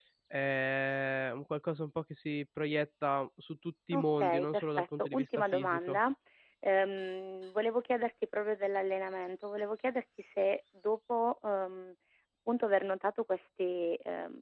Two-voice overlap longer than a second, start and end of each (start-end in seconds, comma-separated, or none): 3.9-6.0